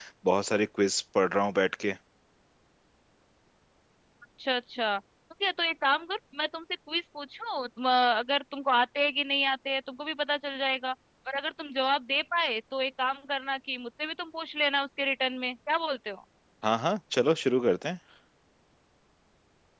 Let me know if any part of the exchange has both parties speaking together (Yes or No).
No